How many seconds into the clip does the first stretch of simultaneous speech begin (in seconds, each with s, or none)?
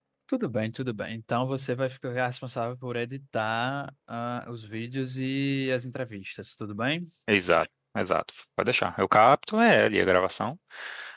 none